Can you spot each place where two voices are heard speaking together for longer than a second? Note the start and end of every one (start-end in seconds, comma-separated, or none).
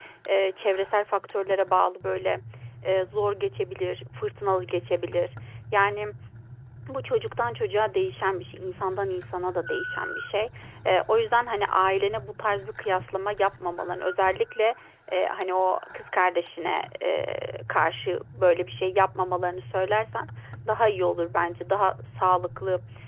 none